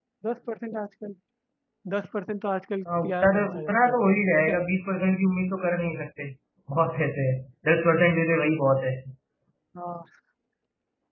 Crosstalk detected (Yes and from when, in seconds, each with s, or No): Yes, from 2.9 s